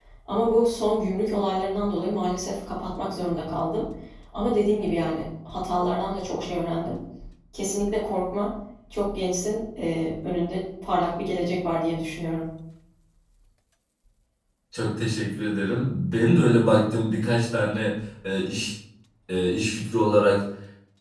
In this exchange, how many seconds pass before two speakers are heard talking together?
none

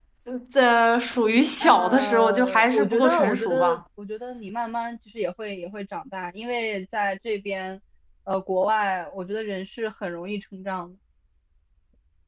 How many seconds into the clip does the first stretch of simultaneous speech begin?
1.6 s

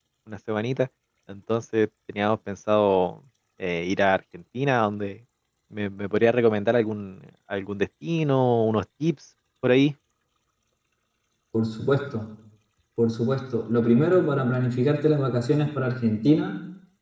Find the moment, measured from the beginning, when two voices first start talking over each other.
none

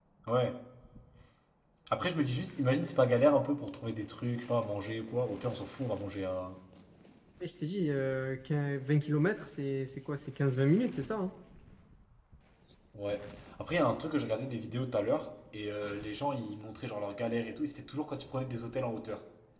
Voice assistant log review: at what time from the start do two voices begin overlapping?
none

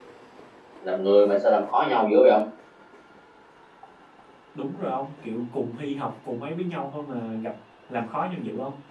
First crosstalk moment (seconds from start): none

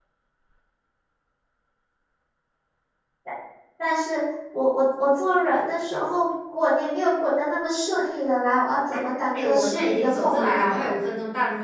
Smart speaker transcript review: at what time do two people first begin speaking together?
9.4 s

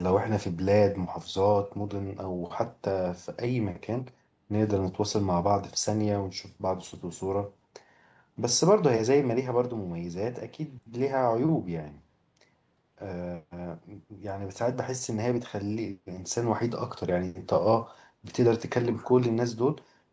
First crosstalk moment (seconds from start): none

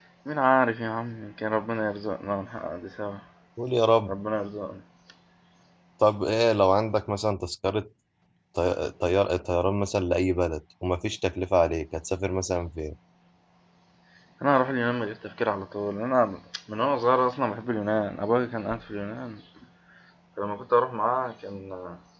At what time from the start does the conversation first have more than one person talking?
none

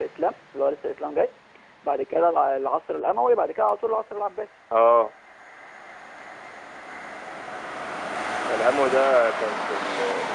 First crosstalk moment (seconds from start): none

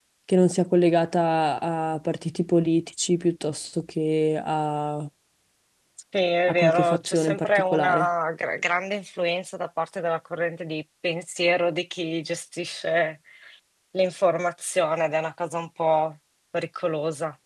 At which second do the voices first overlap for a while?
6.5 s

